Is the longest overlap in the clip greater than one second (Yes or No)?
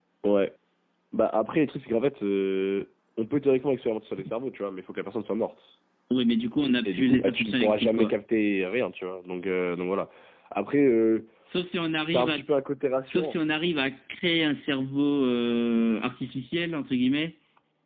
Yes